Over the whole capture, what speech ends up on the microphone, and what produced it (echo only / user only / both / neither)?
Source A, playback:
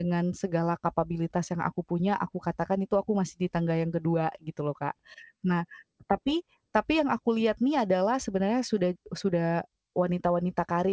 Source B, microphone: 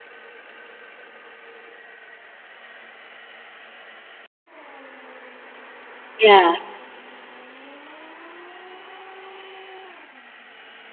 user only